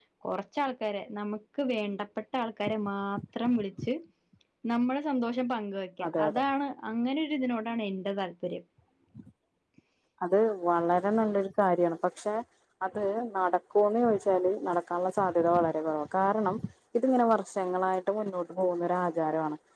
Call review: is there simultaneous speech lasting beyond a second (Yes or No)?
No